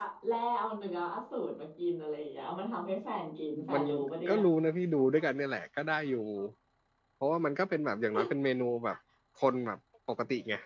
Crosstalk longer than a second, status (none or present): none